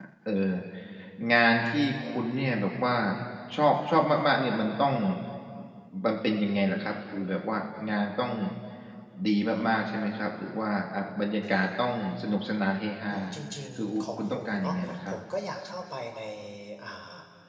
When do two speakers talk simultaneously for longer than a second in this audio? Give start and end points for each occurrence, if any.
13.8-15.1

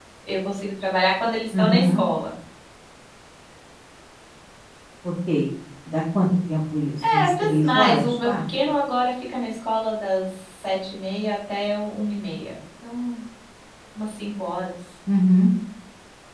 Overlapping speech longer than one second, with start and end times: 7.0-8.4

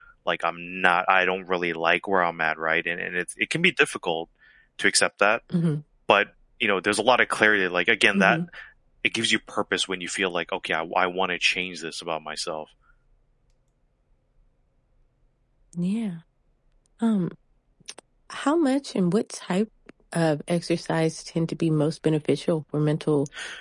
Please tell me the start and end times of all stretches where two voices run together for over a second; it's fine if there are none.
none

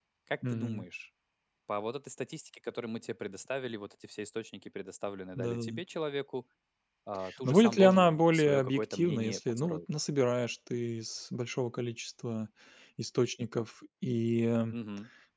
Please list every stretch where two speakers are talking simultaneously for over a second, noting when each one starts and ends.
7.4-9.8

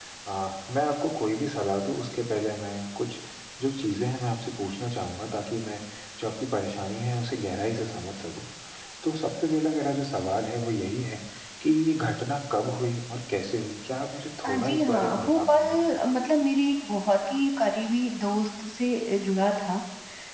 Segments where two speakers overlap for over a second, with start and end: 14.4-15.6

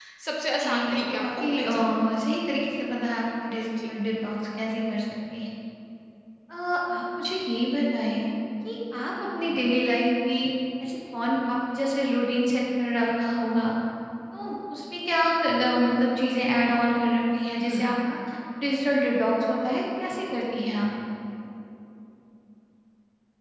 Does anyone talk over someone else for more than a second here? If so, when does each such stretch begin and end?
0.6-1.8

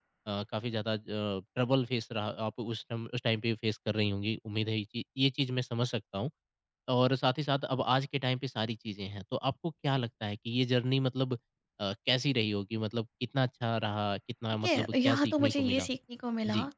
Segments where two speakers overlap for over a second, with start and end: 14.6-15.9

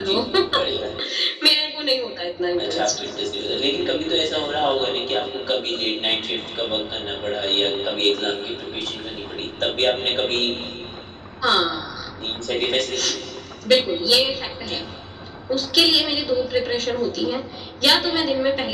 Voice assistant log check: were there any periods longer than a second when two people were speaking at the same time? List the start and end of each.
none

